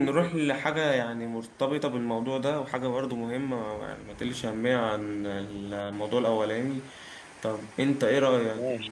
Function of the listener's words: listening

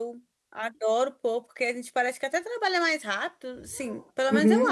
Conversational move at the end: taking over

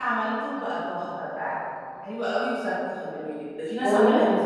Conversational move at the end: taking over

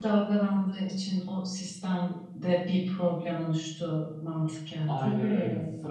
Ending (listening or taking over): taking over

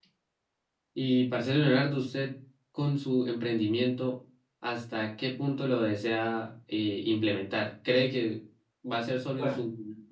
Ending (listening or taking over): listening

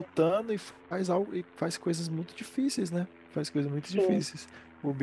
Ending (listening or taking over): listening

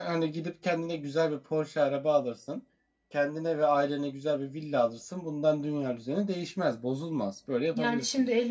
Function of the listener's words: taking over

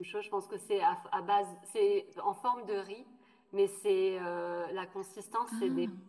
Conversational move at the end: listening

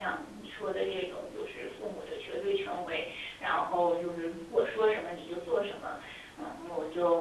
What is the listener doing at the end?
listening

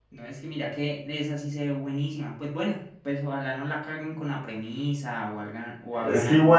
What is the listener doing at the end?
taking over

